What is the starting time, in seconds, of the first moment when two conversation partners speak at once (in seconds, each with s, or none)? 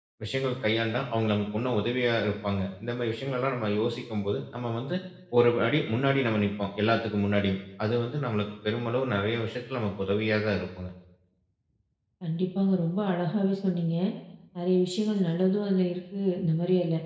none